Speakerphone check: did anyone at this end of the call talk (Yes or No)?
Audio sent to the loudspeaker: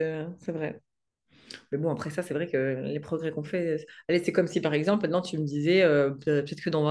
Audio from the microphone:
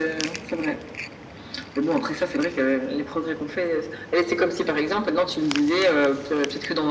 No